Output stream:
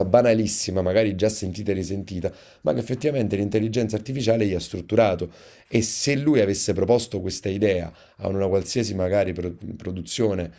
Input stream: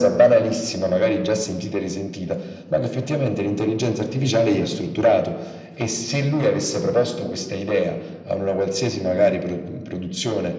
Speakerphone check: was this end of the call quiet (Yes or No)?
Yes